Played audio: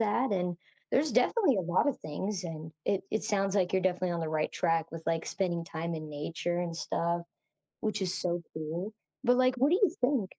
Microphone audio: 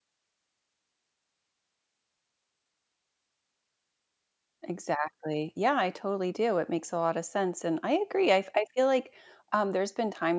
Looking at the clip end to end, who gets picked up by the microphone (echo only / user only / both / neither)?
user only